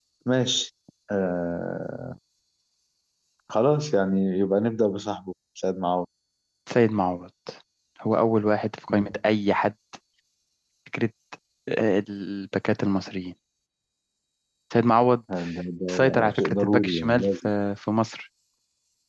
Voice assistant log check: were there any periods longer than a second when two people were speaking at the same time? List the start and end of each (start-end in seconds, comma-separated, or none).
15.9-17.5